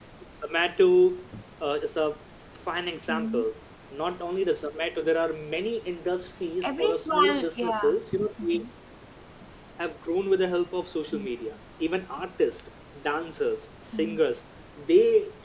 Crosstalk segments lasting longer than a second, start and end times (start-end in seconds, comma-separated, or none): 6.6-8.0